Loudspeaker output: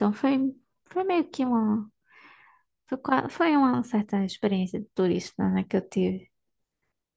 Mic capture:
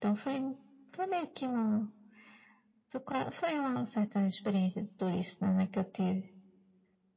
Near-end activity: none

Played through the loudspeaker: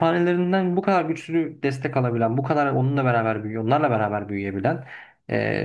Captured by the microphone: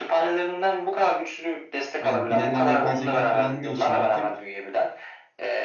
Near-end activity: present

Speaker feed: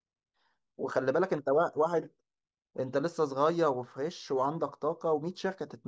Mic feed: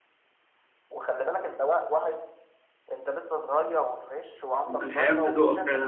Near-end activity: present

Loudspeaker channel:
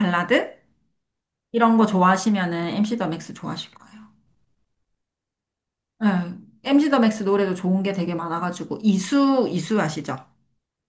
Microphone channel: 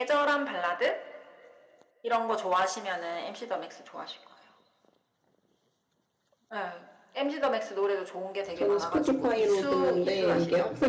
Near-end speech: present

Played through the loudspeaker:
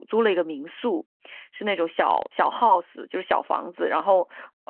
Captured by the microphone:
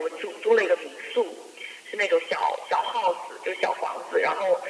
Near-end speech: none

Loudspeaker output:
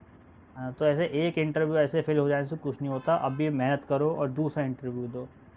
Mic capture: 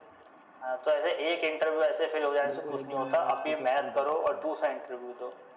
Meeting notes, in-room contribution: present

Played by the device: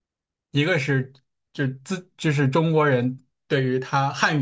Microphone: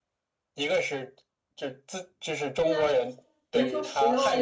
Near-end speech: present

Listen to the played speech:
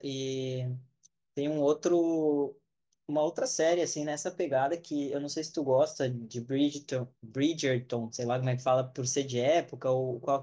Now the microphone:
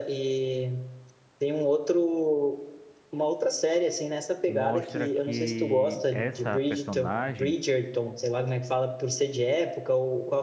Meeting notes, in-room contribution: present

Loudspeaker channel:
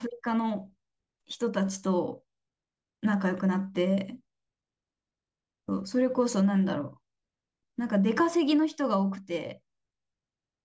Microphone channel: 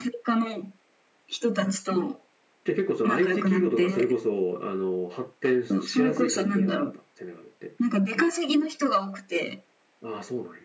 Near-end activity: present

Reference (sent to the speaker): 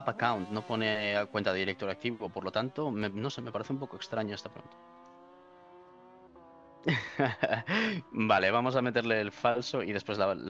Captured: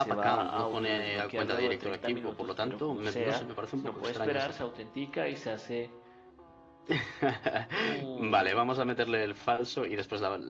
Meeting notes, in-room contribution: present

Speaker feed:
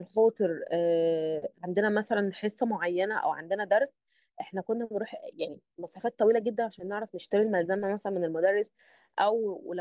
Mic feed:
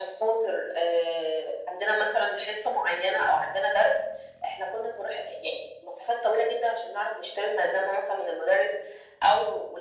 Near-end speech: none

